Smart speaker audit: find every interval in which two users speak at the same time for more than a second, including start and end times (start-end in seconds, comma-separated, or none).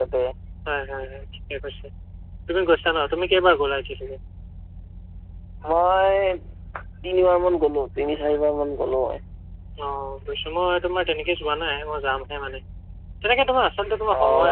none